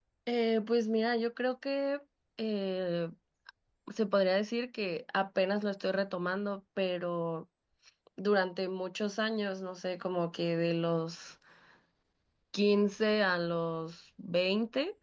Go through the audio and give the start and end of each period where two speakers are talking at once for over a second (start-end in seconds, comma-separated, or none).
none